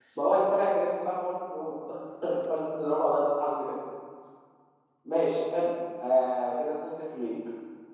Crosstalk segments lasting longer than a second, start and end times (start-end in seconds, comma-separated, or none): none